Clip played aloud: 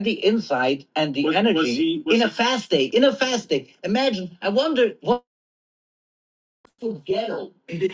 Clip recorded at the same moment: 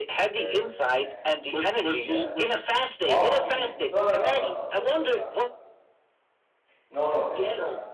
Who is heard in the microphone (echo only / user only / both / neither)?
both